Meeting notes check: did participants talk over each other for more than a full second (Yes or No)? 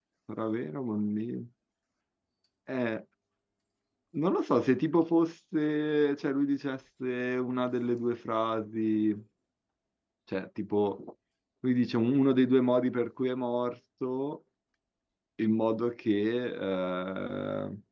No